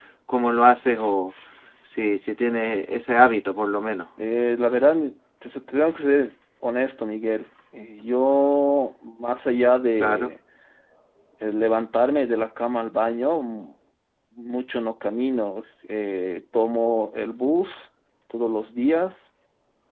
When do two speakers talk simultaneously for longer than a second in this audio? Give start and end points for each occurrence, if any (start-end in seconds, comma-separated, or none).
none